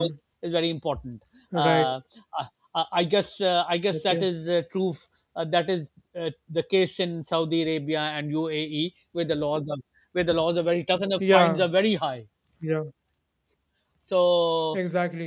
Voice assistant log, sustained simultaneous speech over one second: none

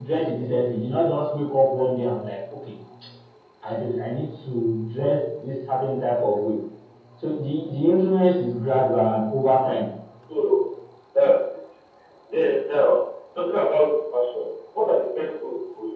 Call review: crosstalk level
none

